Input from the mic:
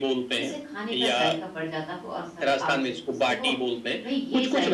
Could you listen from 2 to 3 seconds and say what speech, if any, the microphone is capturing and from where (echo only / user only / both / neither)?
both